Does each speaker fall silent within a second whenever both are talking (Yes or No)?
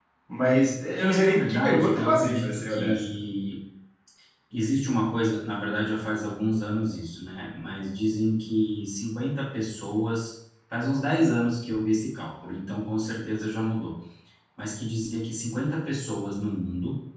No